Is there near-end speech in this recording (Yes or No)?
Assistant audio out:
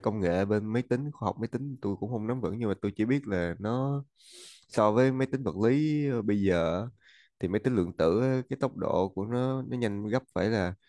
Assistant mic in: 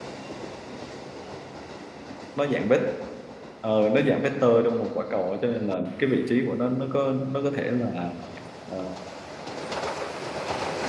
Yes